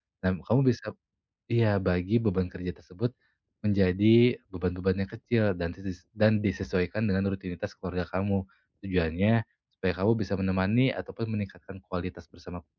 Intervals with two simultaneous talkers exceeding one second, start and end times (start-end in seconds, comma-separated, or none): none